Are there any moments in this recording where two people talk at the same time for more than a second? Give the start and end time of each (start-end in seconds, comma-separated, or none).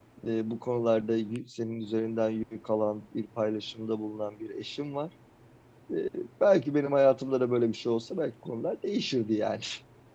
none